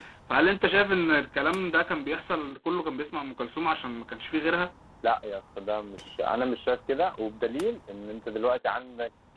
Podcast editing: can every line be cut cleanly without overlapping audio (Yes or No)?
Yes